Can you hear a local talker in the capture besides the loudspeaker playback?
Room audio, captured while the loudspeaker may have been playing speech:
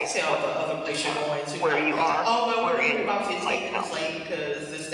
Yes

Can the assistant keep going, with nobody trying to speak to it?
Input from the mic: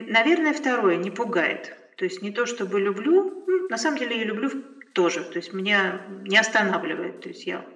Yes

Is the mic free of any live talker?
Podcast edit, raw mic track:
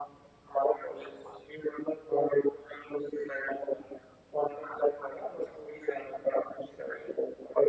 Yes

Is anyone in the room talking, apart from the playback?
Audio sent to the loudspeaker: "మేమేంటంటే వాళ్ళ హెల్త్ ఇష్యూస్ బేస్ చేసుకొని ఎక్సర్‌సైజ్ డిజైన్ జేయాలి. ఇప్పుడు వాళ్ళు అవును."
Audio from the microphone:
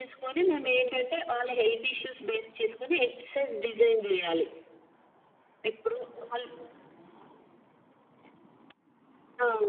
No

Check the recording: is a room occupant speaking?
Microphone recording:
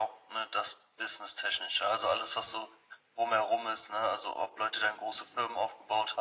No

